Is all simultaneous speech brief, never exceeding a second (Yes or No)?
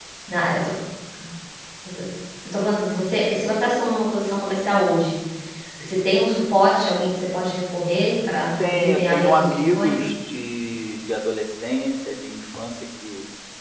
No